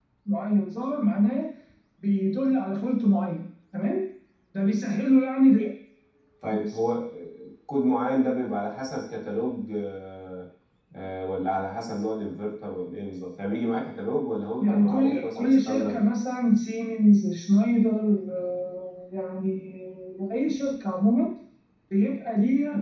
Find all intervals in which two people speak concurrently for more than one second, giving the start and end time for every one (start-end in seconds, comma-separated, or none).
14.6-16.0